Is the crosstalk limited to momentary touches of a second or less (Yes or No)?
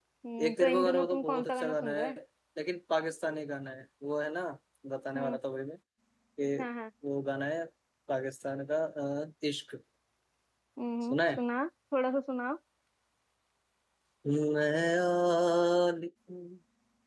No